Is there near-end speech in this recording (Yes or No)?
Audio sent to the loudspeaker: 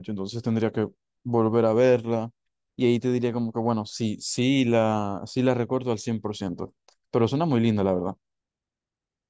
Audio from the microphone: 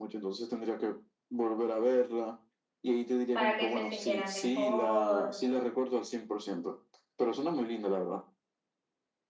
Yes